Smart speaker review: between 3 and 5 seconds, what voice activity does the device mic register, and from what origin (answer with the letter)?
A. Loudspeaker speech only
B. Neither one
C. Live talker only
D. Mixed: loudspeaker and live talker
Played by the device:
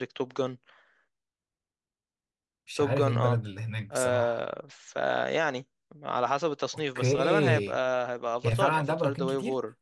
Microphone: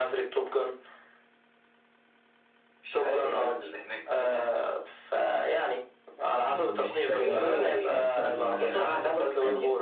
A